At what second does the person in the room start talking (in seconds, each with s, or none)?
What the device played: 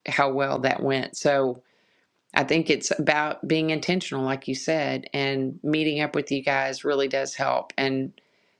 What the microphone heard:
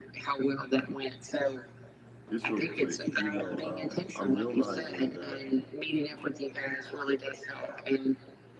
2.3 s